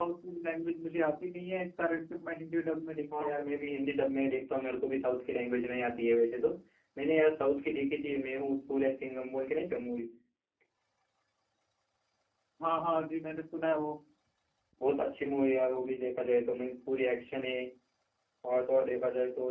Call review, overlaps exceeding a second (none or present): none